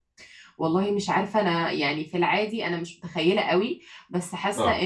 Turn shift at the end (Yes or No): No